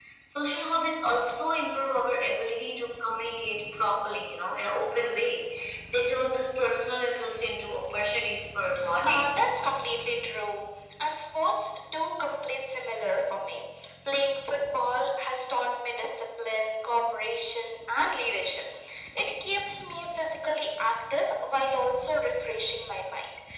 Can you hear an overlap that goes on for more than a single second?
No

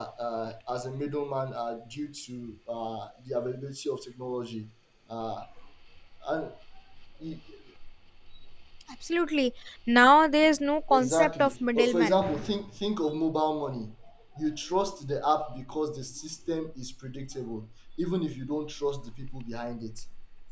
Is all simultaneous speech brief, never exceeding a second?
No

